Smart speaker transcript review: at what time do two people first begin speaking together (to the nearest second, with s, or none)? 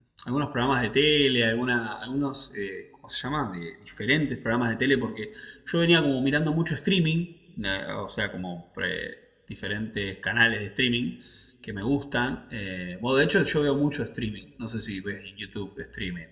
none